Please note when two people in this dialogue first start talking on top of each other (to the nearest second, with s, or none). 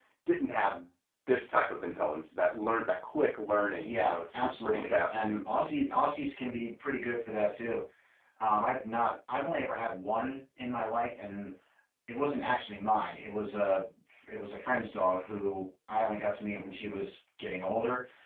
4 s